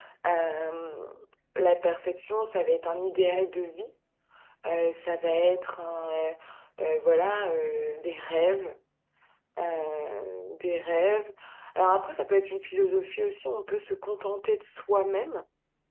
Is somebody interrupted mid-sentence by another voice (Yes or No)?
No